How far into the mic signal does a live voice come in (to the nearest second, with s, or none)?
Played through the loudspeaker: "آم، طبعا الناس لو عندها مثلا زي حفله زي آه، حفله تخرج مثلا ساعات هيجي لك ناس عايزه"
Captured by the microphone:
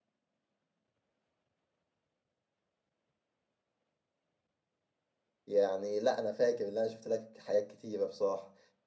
5 s